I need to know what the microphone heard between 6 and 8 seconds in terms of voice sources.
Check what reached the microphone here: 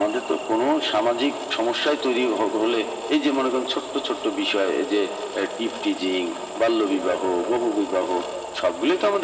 echo only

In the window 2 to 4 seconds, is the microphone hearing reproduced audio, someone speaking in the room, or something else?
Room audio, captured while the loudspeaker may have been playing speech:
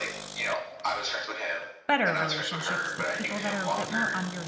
both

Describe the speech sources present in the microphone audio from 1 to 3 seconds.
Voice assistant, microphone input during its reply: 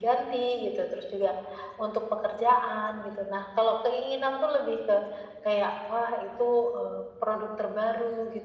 echo only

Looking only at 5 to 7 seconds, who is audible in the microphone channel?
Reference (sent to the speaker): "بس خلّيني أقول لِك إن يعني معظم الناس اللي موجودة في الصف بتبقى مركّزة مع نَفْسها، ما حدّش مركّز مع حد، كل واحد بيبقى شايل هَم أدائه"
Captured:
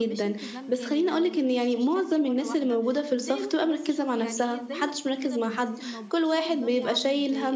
both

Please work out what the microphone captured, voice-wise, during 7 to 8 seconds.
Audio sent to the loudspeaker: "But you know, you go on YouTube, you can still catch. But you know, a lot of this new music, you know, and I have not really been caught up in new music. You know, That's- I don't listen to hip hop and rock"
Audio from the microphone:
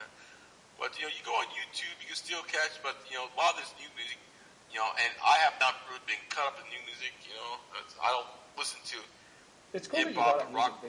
echo only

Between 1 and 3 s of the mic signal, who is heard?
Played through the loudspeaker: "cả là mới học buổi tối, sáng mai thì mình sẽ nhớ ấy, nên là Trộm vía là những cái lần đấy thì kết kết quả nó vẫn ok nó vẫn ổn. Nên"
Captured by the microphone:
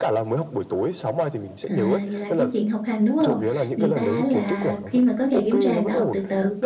both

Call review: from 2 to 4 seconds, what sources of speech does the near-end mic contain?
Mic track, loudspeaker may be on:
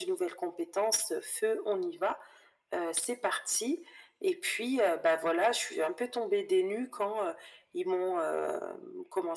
echo only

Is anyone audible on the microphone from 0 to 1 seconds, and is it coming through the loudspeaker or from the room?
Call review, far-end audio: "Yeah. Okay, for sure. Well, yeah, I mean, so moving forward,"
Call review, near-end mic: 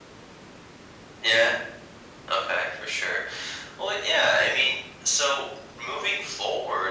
neither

